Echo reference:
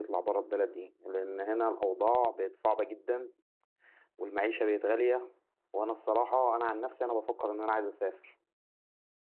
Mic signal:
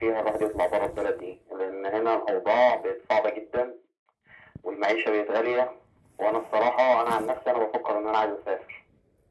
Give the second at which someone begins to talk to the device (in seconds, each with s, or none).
none